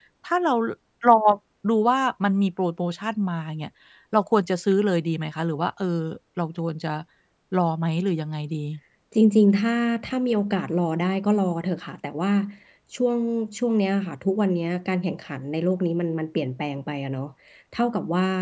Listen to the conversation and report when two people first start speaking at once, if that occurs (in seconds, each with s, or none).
none